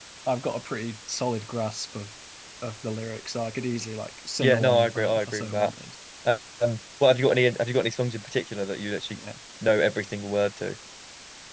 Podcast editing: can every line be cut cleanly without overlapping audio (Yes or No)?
No